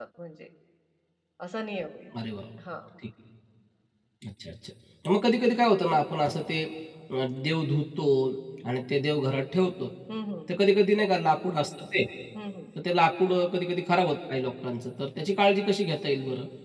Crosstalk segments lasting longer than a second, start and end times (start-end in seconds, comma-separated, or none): none